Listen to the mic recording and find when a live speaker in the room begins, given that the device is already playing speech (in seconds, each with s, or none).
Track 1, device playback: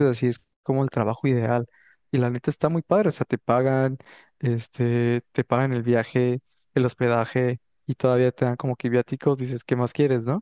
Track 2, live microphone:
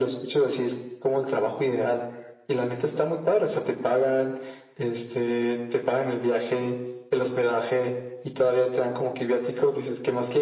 none